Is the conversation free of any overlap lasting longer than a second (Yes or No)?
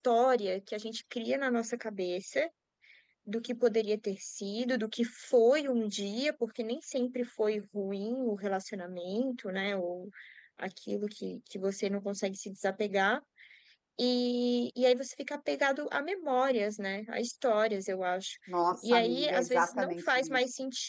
No